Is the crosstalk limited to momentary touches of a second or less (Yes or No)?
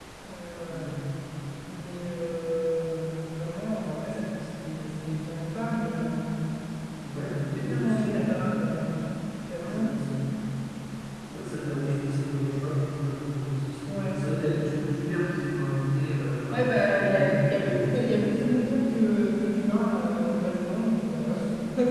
No